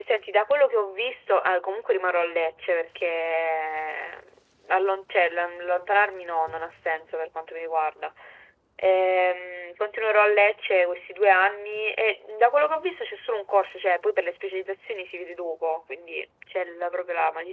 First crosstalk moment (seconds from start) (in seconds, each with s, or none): none